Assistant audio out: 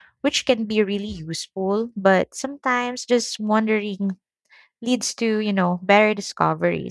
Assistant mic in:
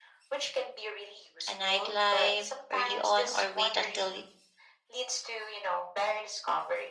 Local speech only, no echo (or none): a nightlife early on or wait until y-